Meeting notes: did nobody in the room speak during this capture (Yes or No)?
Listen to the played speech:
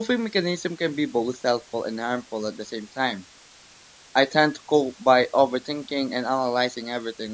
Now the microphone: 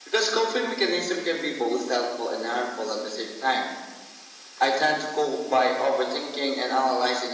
Yes